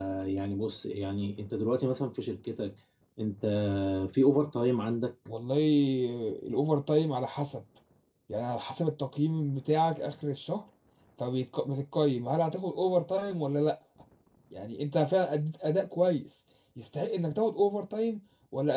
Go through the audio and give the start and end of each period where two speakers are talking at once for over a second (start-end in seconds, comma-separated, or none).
none